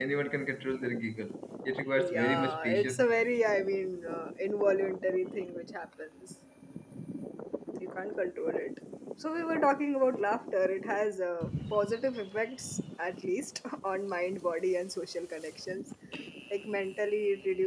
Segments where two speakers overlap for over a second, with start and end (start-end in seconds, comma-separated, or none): 2.0-3.2